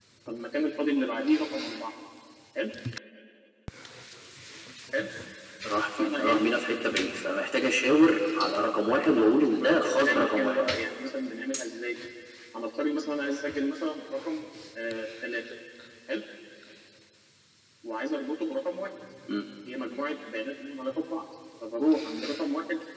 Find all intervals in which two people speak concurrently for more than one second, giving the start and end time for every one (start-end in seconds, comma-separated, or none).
8.8-10.6